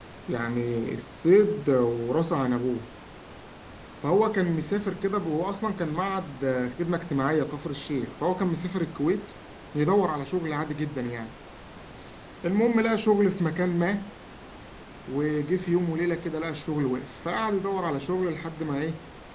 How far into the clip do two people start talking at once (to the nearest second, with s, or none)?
none